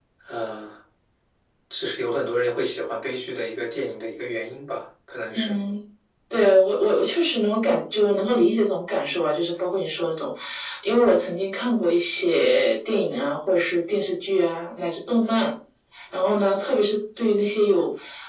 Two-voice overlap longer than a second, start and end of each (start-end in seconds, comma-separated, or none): none